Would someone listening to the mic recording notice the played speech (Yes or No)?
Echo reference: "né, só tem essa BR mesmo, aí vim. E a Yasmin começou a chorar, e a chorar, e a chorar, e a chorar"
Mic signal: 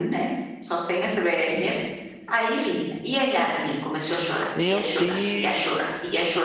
Yes